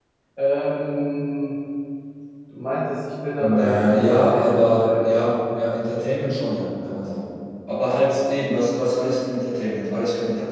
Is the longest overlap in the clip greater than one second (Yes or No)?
Yes